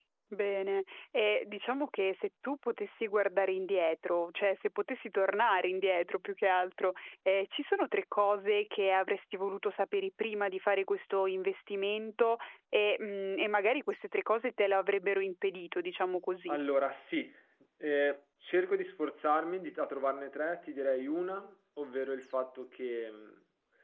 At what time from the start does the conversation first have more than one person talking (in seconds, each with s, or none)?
none